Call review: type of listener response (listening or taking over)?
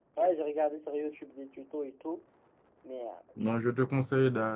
taking over